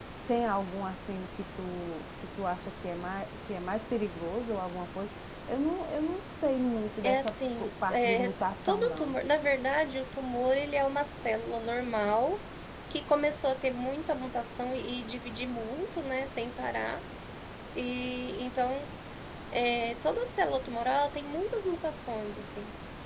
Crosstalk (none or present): present